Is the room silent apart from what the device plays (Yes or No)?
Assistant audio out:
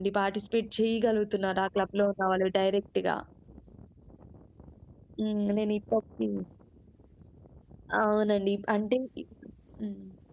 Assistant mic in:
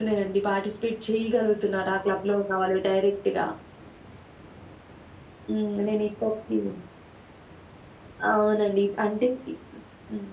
Yes